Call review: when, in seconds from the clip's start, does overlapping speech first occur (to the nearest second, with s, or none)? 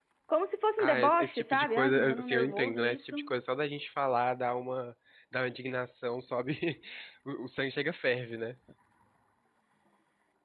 1 s